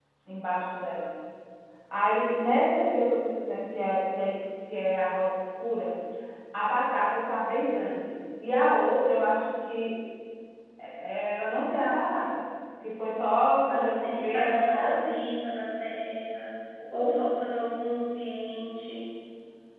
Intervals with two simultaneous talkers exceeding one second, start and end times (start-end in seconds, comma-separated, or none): 13.7-15.3